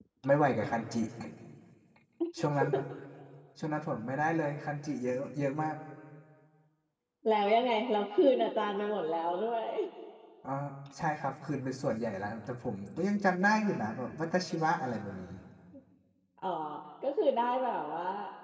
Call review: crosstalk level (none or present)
none